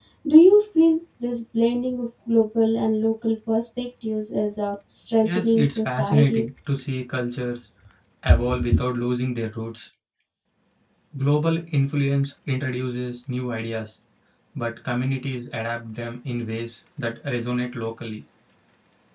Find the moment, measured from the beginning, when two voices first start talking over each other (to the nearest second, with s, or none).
5 s